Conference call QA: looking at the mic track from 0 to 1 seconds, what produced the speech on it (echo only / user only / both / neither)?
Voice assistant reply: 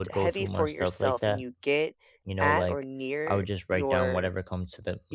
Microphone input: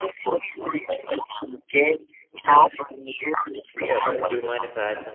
echo only